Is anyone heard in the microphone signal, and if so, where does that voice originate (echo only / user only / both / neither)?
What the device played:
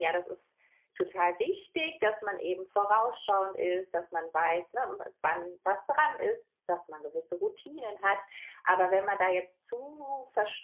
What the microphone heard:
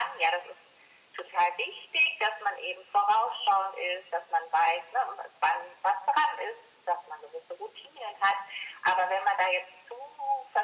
echo only